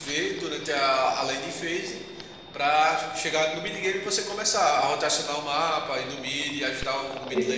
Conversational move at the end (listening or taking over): taking over